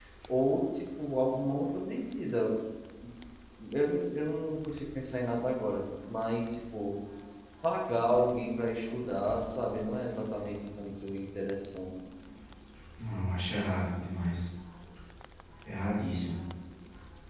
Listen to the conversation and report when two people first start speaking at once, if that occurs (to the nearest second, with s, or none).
none